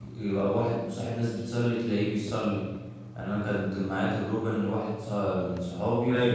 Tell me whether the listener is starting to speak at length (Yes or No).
No